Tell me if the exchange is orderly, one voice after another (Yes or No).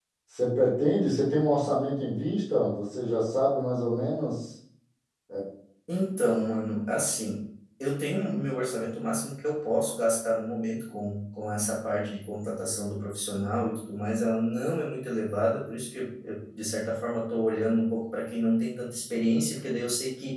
Yes